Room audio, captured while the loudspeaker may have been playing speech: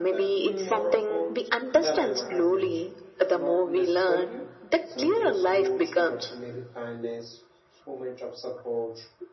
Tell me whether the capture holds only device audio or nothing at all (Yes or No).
No